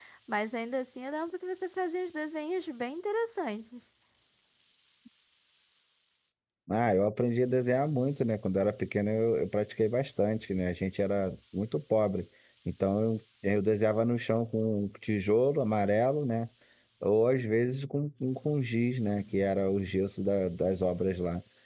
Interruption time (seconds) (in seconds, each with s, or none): none